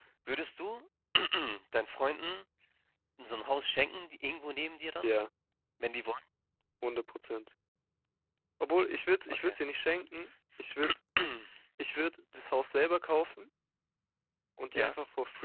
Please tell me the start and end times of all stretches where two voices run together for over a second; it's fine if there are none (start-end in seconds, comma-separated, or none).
none